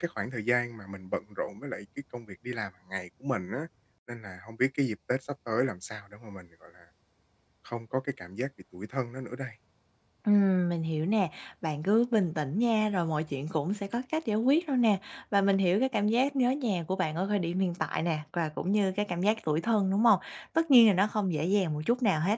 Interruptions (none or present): none